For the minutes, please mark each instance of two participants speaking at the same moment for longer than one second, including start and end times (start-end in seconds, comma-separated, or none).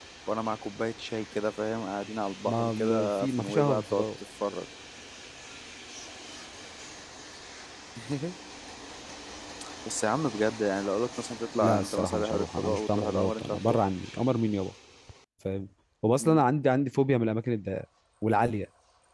2.5-4.0, 11.6-13.8